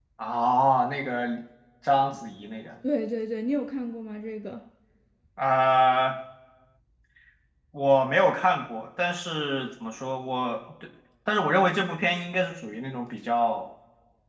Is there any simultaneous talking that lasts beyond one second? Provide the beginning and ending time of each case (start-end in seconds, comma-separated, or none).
none